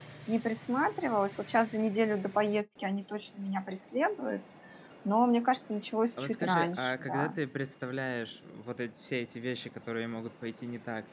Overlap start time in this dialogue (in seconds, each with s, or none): 6.2 s